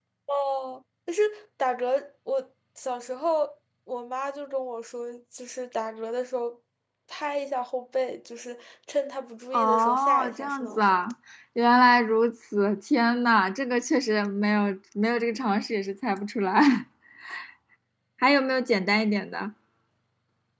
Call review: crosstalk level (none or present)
present